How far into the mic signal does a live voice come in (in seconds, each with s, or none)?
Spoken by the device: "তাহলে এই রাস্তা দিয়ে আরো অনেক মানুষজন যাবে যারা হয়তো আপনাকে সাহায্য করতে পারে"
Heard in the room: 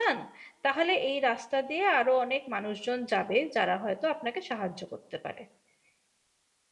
none